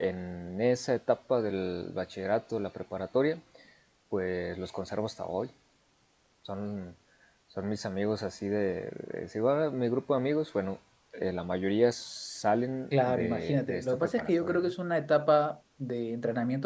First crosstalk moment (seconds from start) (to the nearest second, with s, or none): 13 s